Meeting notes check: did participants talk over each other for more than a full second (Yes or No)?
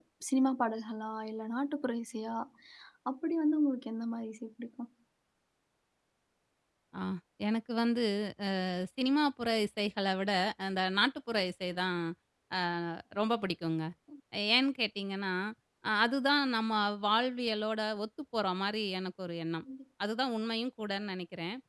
No